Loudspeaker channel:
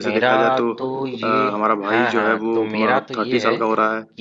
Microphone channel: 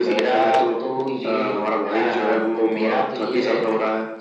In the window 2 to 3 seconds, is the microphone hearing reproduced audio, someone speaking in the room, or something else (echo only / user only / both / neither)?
echo only